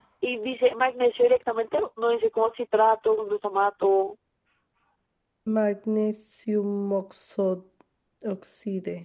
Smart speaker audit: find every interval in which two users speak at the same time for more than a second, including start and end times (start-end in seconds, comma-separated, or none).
none